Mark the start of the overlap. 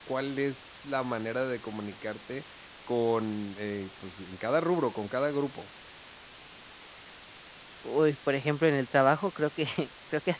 none

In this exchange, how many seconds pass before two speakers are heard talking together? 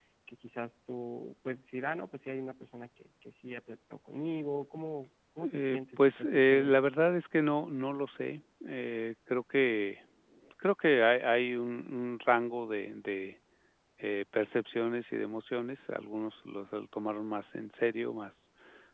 5.4 s

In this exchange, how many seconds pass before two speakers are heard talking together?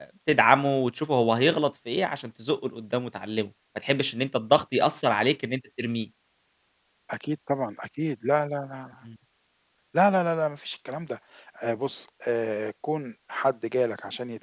none

